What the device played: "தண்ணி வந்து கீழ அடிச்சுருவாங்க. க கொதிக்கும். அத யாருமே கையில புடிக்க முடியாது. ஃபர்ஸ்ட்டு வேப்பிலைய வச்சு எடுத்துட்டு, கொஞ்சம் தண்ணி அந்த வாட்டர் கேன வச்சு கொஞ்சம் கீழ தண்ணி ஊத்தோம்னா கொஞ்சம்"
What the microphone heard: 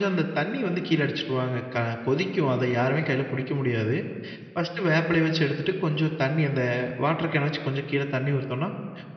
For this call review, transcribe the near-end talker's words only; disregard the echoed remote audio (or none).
none